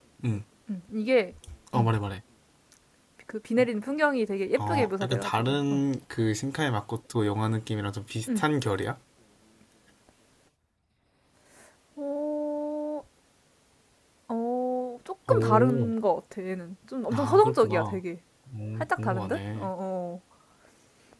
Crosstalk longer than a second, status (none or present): present